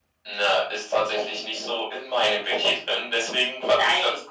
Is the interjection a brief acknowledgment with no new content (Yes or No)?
Yes